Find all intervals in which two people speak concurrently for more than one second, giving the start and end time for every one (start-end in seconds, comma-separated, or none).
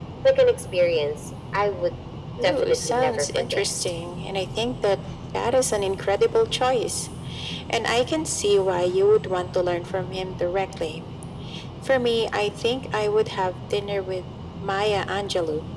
2.4-3.7